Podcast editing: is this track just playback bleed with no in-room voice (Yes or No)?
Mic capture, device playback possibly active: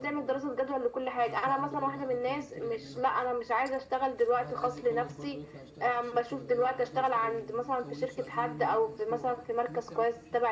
No